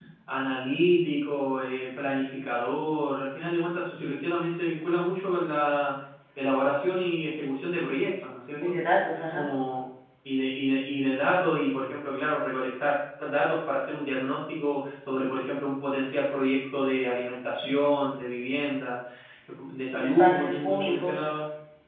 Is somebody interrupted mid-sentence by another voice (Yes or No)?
Yes